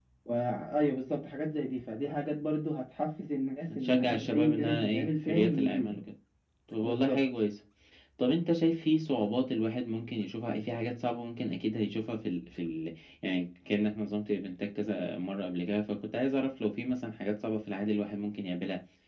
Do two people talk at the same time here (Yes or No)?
Yes